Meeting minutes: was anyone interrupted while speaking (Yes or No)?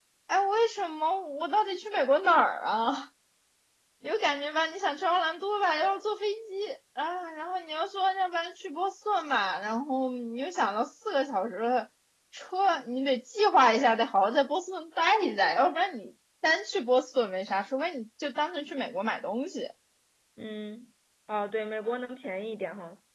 No